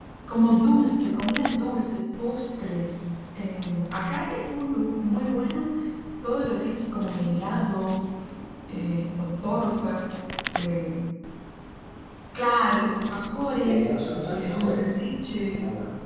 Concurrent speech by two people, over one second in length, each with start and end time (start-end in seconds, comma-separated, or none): 13.6-14.8